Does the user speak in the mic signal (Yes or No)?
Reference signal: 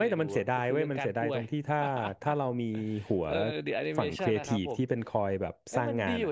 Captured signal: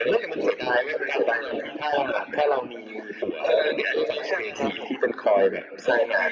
No